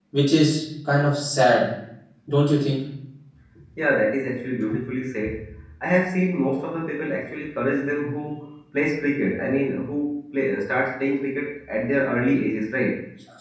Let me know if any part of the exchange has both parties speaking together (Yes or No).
No